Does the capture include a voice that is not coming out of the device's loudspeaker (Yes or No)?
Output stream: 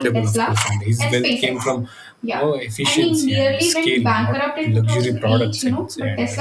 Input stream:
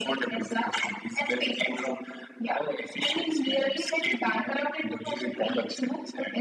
No